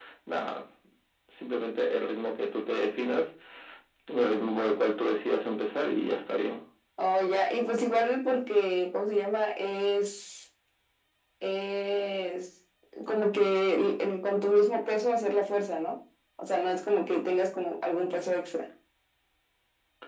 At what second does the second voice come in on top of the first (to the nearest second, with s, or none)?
none